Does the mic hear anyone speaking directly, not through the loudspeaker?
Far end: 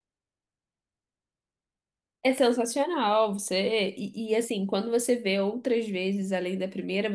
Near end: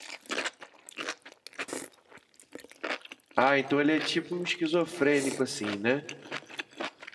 Yes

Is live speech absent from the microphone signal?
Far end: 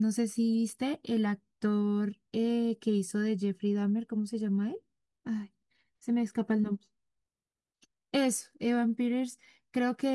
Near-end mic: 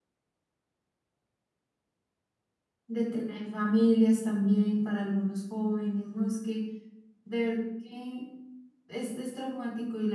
No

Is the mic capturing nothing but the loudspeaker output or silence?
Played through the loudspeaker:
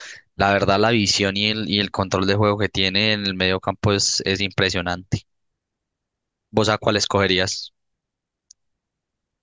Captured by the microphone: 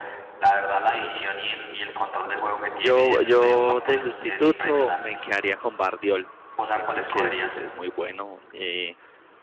No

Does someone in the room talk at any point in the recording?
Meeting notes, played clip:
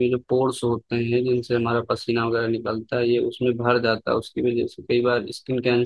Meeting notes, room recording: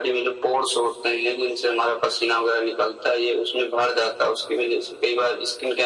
No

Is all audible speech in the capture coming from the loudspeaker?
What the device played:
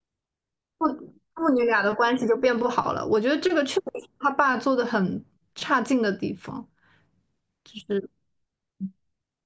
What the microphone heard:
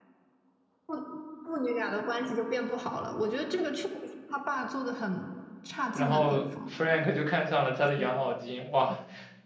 No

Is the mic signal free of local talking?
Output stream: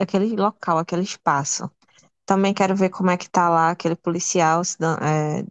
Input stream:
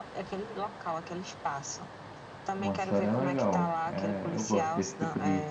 No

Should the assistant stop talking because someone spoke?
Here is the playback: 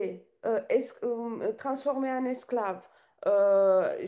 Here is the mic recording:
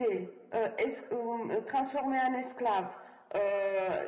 No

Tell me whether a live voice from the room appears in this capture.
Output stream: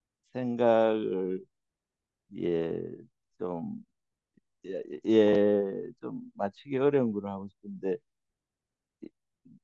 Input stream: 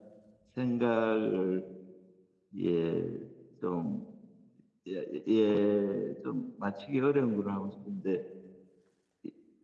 No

